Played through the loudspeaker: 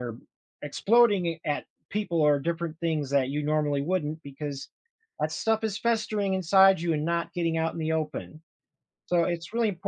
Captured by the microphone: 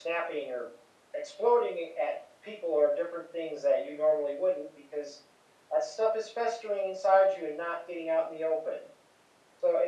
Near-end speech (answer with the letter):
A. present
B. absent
B